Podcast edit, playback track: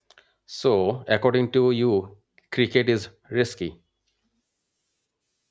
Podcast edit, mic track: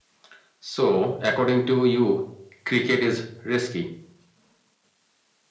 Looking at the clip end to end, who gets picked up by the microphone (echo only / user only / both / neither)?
echo only